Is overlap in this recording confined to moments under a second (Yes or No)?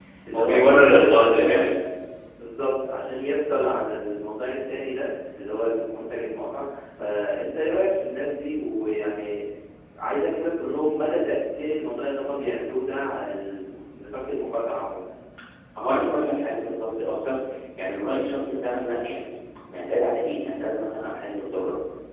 No